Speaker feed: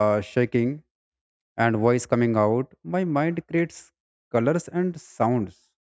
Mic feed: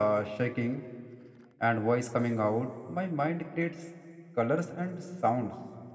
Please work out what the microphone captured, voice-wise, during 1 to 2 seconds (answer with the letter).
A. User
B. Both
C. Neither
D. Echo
D